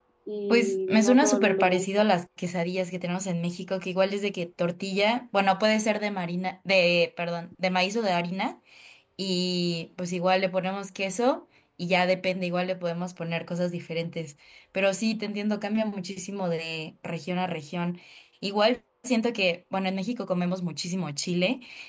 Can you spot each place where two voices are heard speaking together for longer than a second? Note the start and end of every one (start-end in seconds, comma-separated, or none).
0.5-2.0